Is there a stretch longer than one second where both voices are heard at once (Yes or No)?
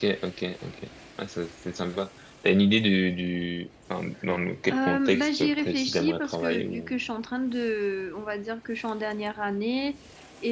Yes